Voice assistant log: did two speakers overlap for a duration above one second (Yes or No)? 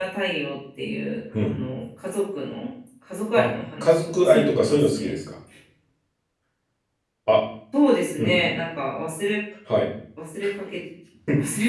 Yes